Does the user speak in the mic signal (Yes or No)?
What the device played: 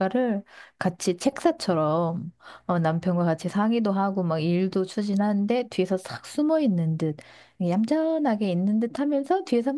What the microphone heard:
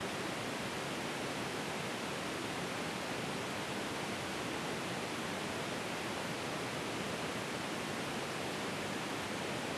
No